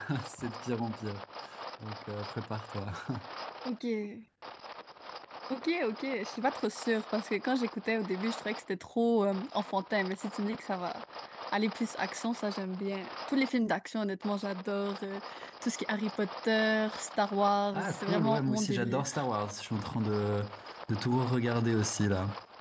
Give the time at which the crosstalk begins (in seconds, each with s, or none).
17.7 s